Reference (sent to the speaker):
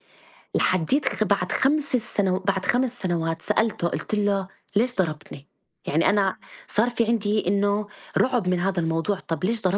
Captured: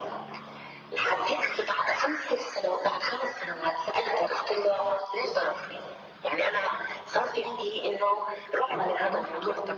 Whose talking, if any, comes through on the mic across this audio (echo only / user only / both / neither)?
both